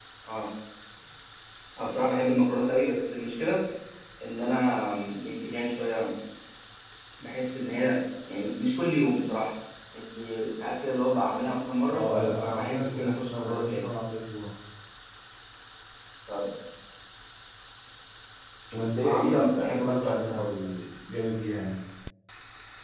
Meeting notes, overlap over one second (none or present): present